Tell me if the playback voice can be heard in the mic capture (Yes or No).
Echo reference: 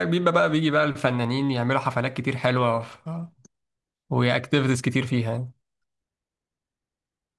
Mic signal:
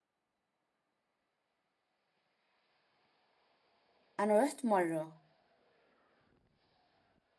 No